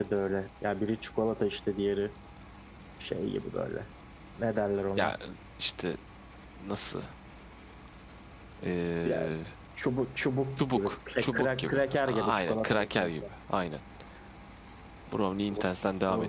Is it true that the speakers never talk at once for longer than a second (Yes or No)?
No